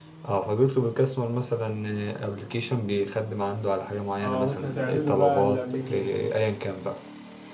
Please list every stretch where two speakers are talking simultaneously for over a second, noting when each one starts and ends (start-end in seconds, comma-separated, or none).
4.2-6.3